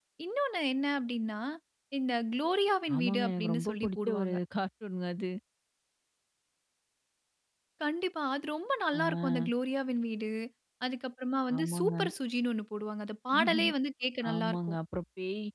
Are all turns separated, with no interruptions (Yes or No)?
No